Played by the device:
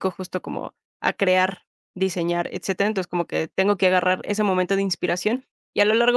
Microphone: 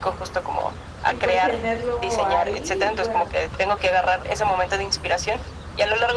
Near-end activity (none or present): present